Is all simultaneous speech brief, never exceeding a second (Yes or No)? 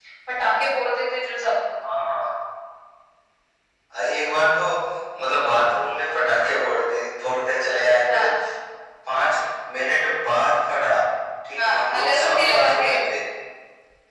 No